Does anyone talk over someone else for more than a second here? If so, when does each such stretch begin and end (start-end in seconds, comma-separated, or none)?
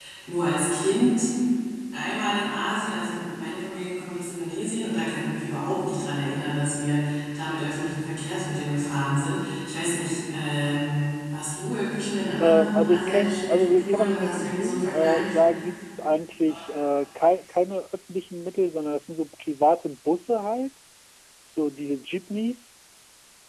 12.4-15.4